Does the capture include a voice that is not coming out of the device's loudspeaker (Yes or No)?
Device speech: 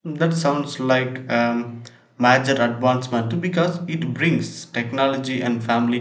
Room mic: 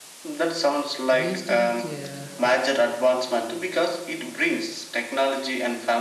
Yes